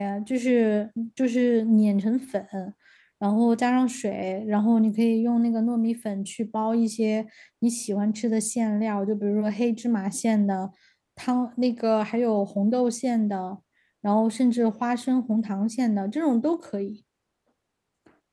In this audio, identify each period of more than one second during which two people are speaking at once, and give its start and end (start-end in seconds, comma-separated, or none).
none